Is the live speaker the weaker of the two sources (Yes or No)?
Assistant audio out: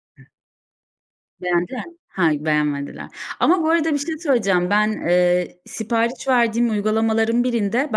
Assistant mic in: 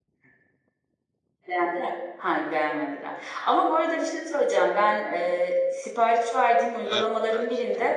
Yes